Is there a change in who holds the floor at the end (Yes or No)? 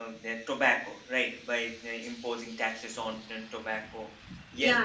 Yes